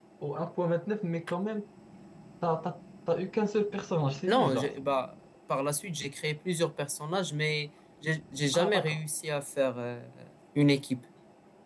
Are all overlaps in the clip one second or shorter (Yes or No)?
Yes